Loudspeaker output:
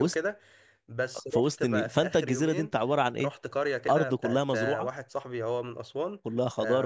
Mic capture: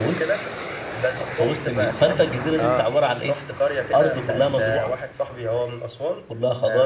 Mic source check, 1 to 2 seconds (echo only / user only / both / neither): echo only